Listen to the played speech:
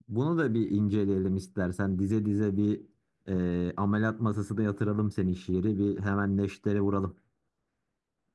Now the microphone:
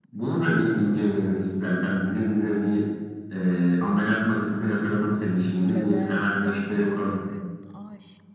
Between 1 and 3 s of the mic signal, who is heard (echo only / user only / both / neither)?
echo only